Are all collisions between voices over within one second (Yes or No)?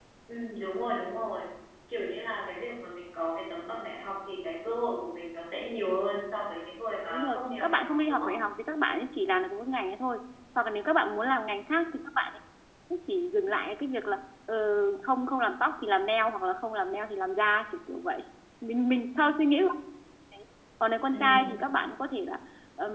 No